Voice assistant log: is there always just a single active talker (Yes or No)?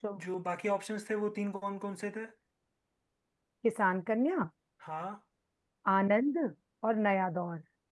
Yes